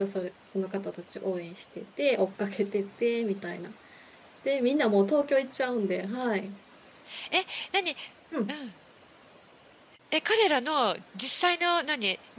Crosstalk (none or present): none